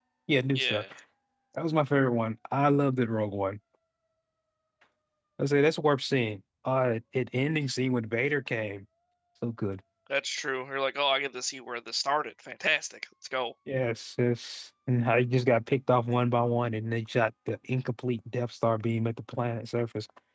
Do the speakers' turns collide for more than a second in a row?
No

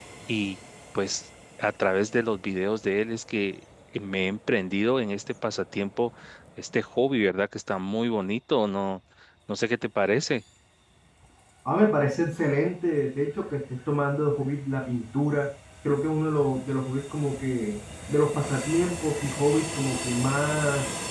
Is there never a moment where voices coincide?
Yes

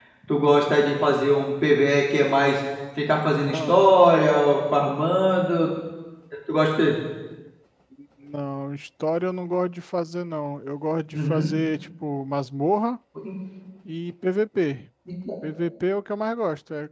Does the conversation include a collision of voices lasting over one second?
No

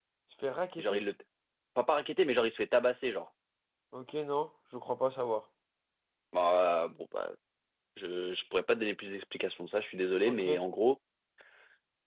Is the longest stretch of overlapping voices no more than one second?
Yes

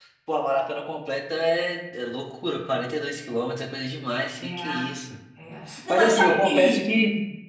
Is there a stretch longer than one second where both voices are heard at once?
Yes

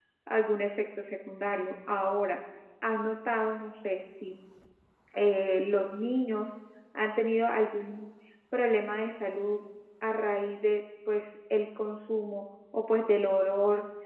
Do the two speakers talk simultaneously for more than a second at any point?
No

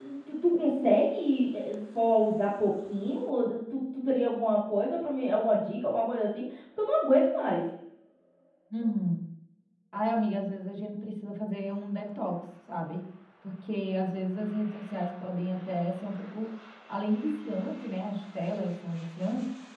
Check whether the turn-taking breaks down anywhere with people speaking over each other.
No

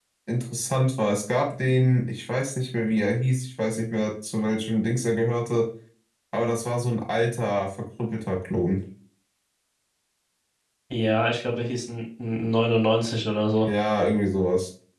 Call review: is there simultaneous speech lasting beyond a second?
No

